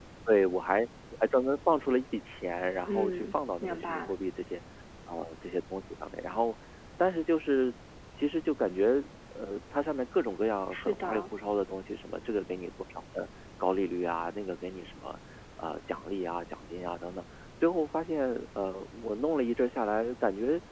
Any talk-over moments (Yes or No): Yes